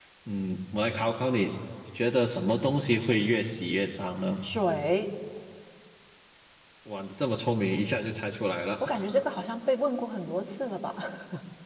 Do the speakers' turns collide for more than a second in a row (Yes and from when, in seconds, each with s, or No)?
No